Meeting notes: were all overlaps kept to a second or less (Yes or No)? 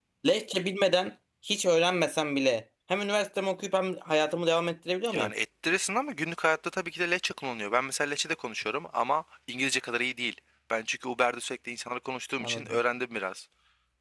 Yes